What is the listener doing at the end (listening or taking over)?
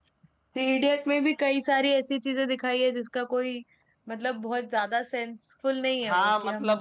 taking over